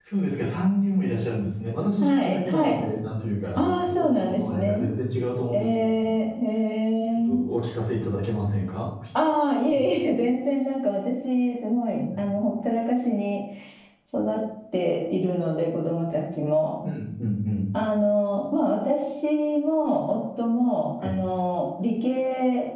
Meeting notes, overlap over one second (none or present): present